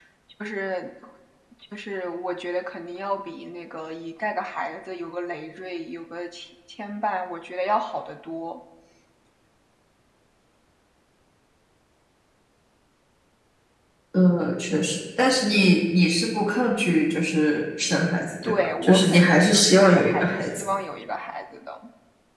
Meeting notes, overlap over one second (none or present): present